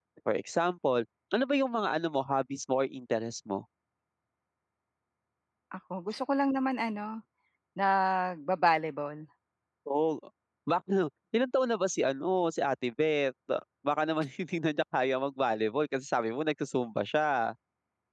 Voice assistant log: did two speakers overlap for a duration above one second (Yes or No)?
No